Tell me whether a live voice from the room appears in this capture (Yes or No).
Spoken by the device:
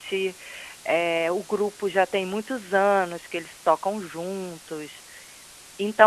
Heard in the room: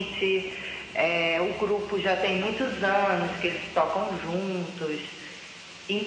No